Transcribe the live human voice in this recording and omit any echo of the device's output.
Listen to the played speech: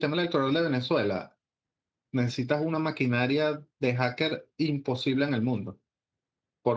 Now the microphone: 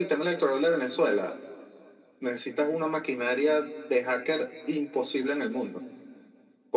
none

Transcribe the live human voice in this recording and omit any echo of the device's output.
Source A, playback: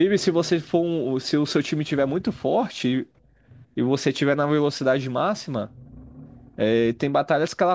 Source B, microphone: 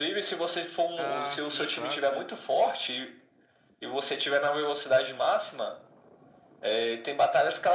Ah, sim, claro, conheço.

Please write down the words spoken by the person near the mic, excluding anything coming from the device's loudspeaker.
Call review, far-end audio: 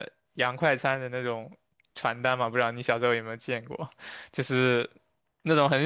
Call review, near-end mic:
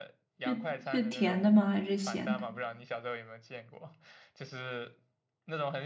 是是甜的吗？还是咸的？

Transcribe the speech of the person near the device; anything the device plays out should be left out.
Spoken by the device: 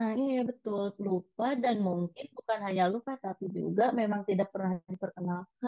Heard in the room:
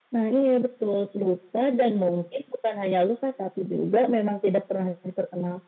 none

